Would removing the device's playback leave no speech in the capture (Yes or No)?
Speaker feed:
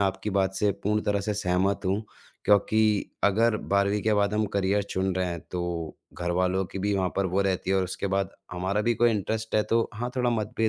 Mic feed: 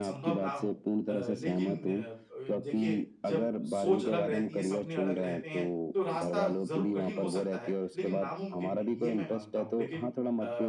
No